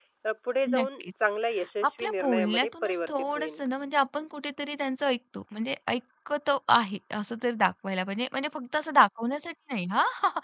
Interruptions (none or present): present